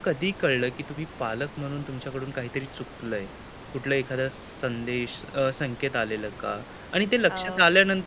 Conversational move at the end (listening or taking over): listening